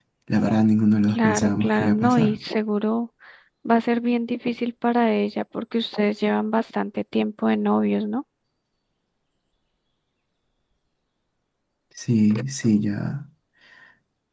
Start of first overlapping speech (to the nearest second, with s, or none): 1 s